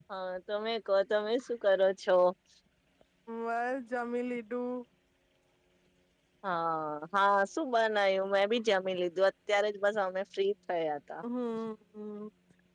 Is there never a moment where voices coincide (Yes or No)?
Yes